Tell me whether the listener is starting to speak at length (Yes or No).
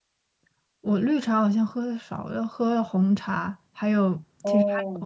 No